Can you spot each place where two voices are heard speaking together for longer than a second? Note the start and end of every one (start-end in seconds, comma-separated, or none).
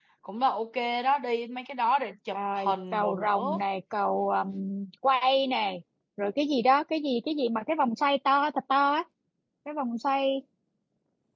2.3-3.6